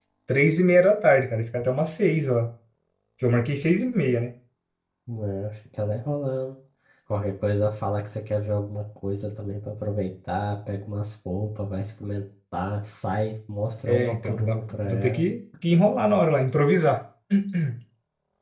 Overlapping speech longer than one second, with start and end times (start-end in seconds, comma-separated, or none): 13.8-15.3